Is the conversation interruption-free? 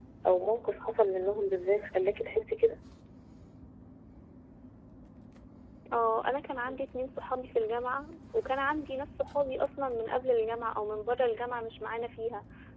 Yes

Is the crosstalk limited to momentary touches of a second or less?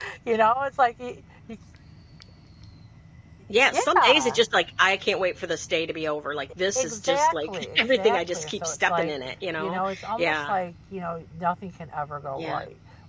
No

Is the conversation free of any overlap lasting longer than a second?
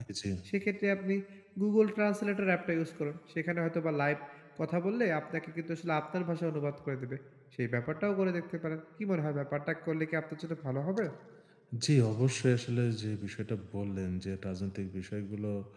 Yes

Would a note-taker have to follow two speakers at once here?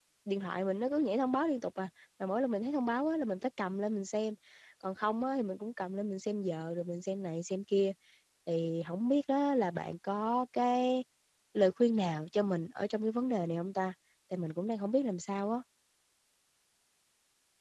No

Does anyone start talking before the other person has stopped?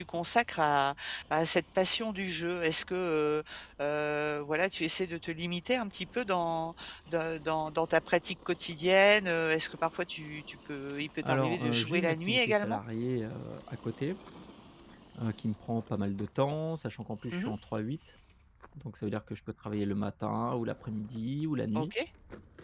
Yes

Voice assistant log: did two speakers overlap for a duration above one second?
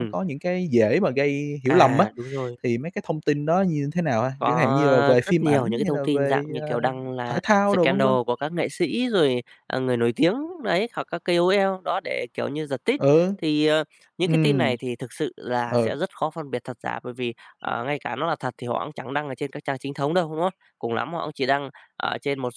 Yes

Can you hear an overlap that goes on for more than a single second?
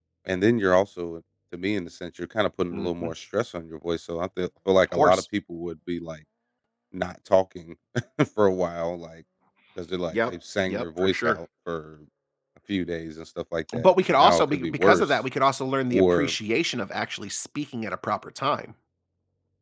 Yes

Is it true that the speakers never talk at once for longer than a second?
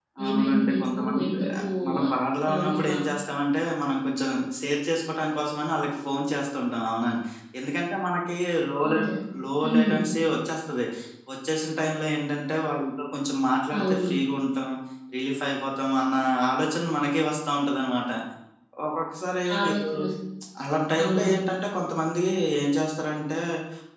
No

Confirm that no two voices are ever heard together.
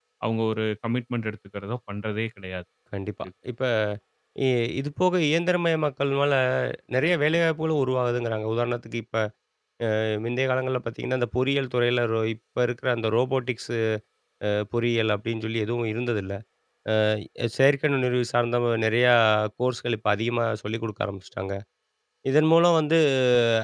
Yes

